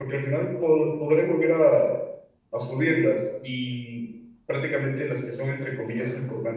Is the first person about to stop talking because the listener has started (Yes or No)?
No